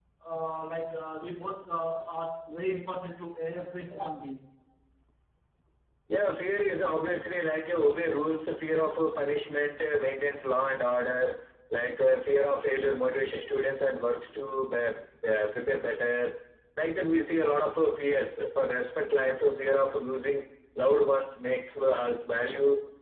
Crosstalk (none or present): none